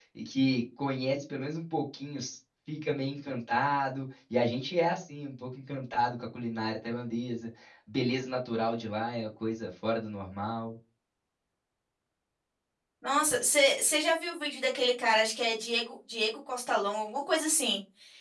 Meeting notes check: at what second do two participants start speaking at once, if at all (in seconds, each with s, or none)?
none